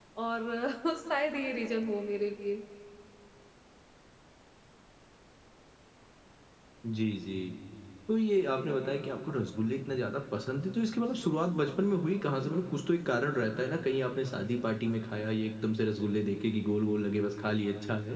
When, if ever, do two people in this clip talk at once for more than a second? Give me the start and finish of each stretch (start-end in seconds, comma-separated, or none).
none